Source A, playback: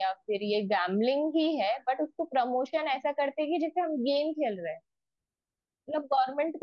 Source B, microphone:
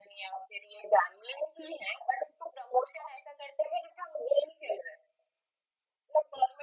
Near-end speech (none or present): none